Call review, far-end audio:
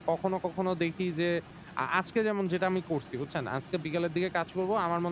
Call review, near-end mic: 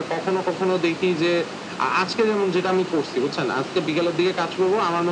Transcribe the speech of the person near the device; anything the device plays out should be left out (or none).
none